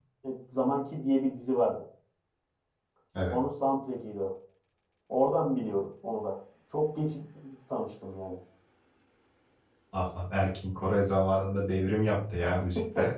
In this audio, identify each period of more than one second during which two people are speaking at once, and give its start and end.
none

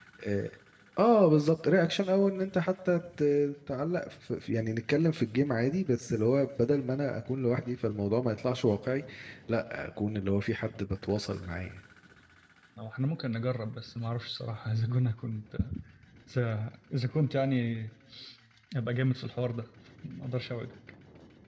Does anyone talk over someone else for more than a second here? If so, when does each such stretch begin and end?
none

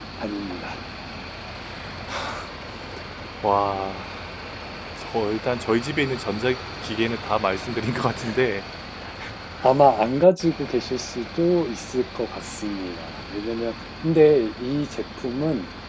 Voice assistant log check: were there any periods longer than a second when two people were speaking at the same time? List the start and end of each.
none

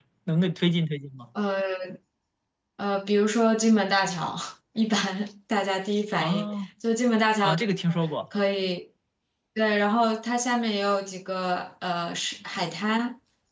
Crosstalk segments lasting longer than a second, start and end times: none

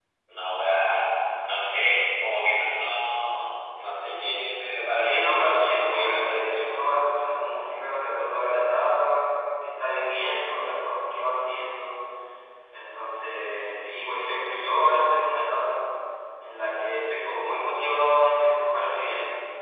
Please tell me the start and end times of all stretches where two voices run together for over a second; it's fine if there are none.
4.9-6.6

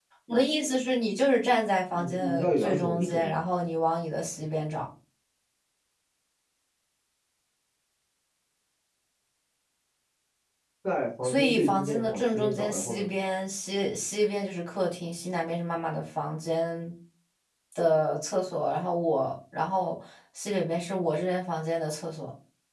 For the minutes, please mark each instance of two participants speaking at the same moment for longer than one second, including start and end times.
1.9-3.3, 11.2-13.1

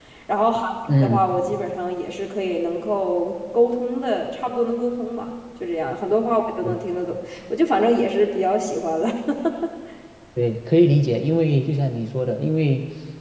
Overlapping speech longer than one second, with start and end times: none

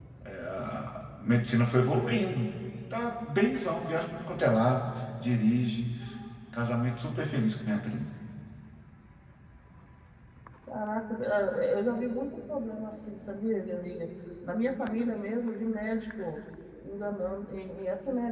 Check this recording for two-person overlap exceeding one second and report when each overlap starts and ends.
none

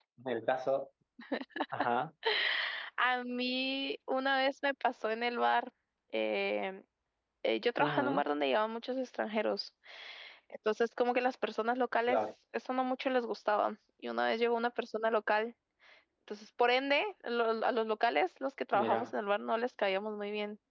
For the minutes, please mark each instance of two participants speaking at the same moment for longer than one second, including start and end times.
none

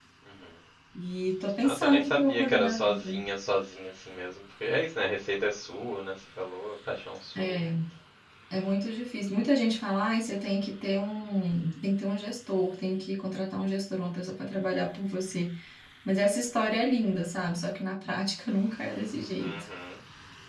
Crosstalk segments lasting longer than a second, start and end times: 1.6-3.2

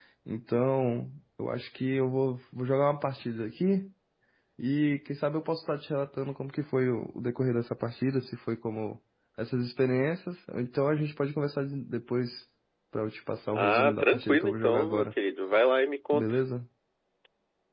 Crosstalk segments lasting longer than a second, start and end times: 13.5-15.1

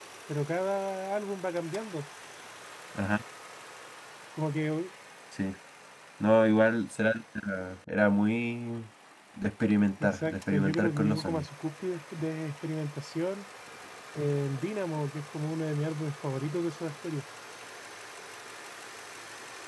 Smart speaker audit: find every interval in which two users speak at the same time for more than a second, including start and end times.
10.0-11.5

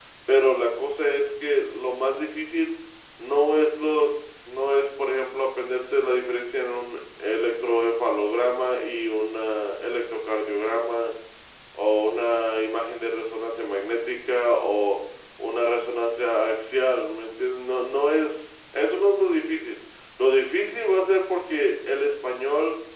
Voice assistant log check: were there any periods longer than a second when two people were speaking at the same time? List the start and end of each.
none

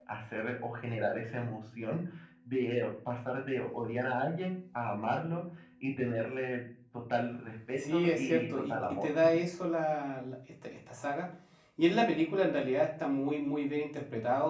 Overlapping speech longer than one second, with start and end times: 7.8-9.1

